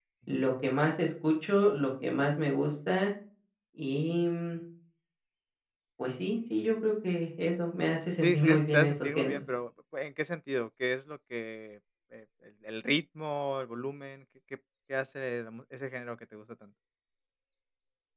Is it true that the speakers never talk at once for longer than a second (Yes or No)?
No